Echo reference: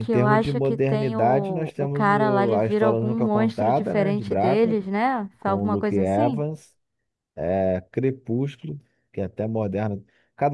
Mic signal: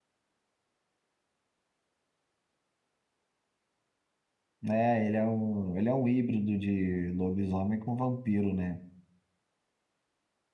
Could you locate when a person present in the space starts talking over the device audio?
4.6 s

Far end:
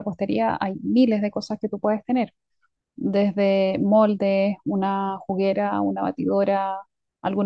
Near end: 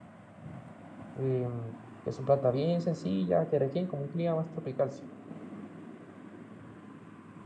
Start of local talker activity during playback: 1.1 s

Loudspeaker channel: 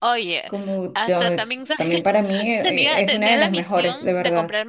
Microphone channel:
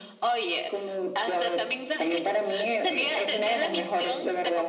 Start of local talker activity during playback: none

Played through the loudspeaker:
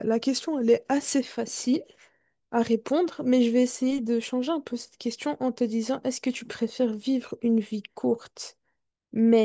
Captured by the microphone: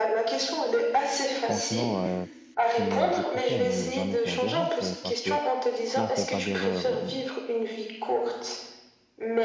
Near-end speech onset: 1.4 s

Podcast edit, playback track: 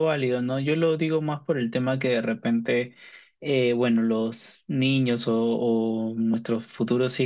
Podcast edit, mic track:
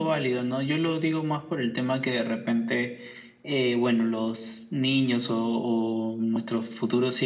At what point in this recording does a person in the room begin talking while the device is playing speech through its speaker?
none

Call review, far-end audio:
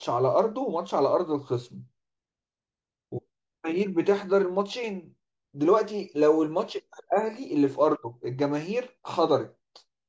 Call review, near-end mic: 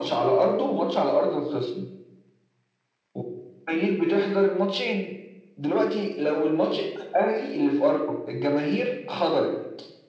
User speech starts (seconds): none

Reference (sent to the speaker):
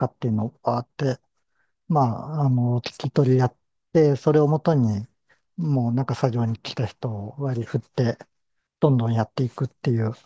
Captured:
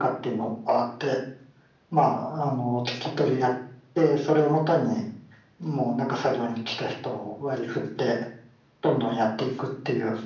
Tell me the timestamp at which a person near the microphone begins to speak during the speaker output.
none

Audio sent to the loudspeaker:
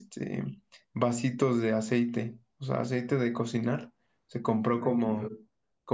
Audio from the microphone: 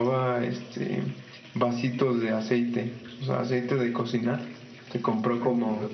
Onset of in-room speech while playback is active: none

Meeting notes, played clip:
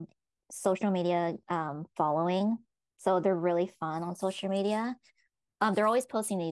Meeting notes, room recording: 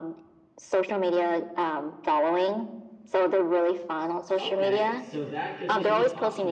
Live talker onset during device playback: 4.4 s

